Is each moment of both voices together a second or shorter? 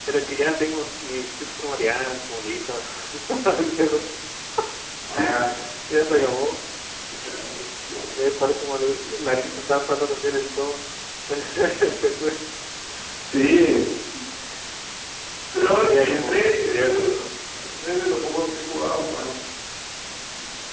No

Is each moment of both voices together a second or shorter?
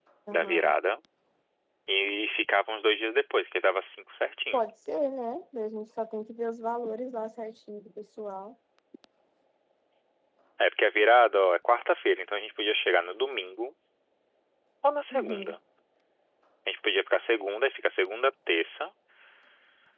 Yes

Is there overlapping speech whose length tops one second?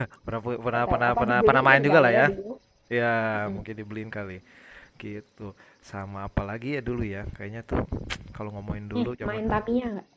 Yes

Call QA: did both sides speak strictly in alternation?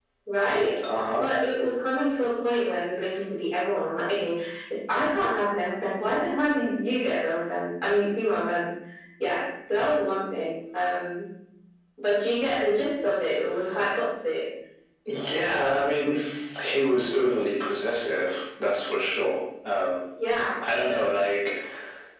Yes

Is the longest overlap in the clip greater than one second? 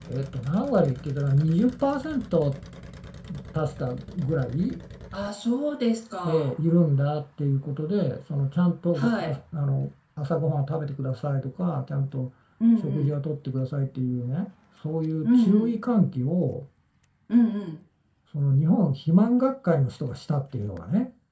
No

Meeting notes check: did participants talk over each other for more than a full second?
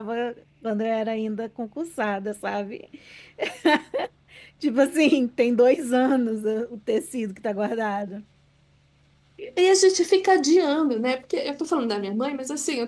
No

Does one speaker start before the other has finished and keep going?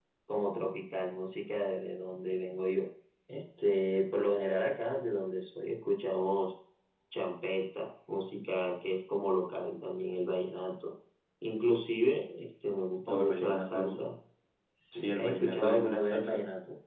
Yes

